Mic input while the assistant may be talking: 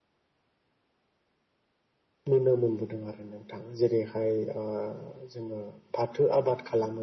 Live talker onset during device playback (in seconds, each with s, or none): 2.3 s